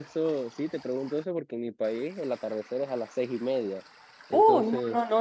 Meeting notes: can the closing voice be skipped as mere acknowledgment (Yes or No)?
No